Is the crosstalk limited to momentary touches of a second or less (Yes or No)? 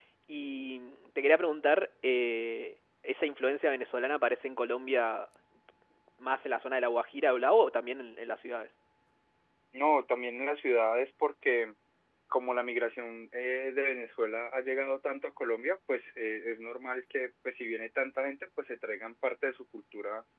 Yes